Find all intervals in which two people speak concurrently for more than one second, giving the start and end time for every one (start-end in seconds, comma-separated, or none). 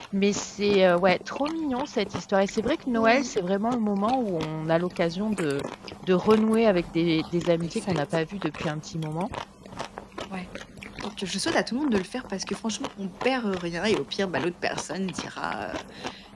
none